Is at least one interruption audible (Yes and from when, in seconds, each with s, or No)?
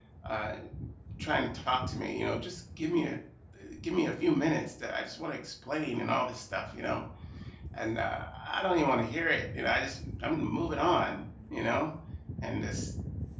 No